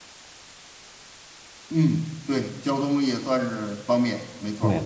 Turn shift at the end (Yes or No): Yes